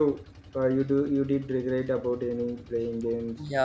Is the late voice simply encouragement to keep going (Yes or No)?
No